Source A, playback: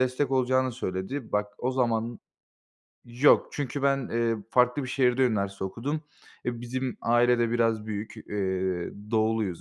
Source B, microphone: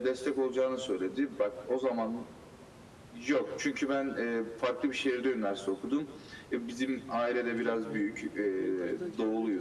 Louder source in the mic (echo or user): echo